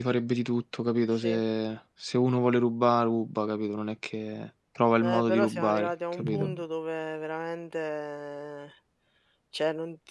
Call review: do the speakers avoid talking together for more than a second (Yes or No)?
No